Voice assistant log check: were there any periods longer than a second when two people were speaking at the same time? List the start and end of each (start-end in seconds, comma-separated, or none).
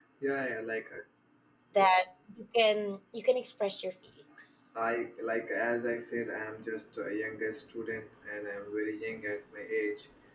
none